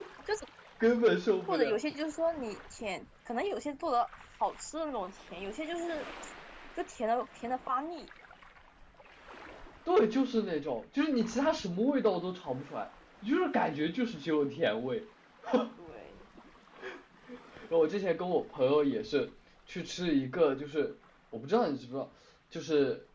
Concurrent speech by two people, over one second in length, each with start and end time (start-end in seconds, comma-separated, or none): none